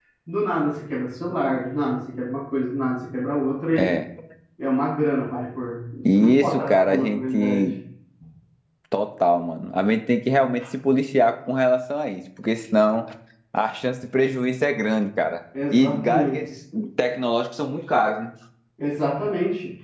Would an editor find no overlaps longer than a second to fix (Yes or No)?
No